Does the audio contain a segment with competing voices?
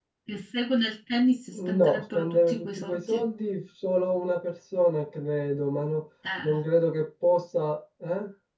Yes, from 1.5 s

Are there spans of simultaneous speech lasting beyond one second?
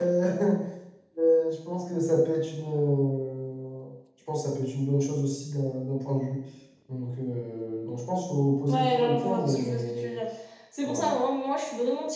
Yes, from 8.7 s

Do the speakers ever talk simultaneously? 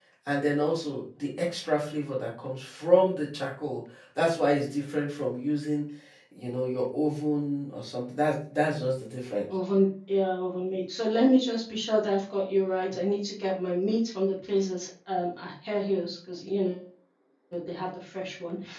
No

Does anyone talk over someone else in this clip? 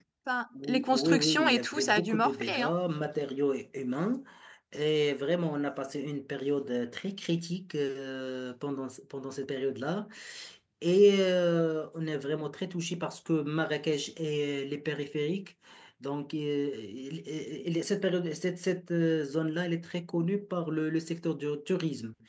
Yes, from 0.6 s

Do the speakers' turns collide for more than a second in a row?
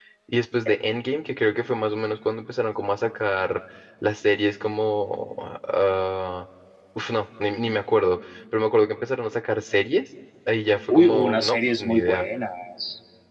Yes, from 10.9 s

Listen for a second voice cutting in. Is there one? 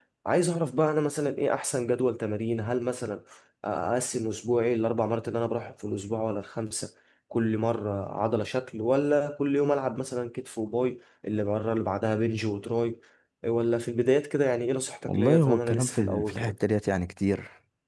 Yes, from 15.1 s

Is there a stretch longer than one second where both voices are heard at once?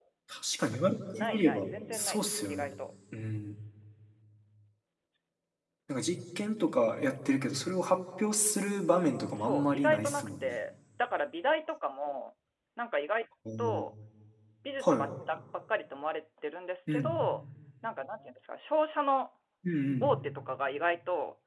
Yes, from 1.1 s

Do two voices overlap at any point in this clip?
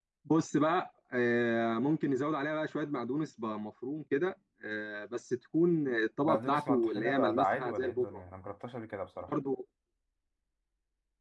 Yes, from 6.2 s

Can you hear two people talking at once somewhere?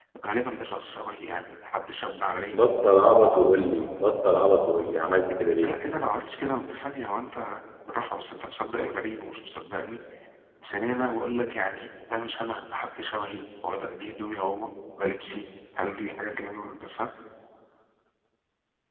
No

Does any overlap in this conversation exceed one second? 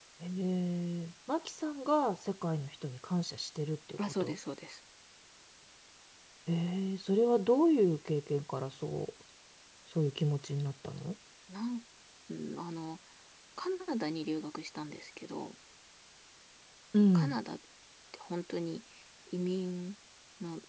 No

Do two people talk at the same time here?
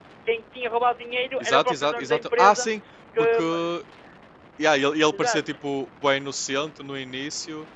Yes, from 1.4 s

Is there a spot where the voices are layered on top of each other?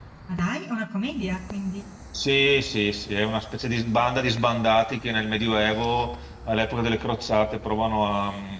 No

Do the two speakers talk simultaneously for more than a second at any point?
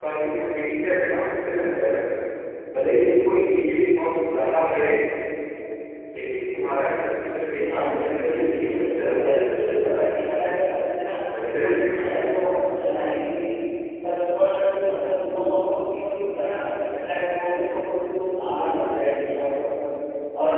Yes, from 7.7 s

